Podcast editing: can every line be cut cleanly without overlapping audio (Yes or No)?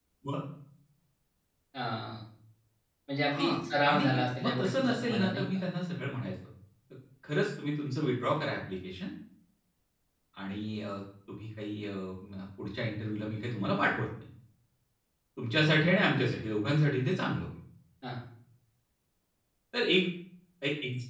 No